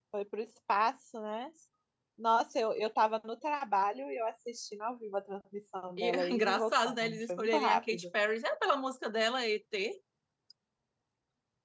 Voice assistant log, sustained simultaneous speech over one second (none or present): present